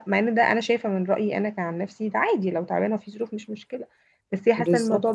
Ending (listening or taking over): listening